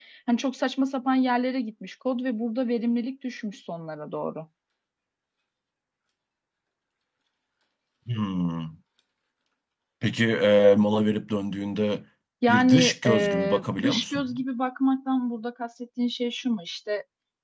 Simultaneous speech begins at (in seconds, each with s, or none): 12.5 s